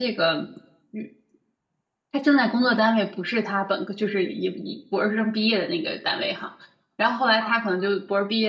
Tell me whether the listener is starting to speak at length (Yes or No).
No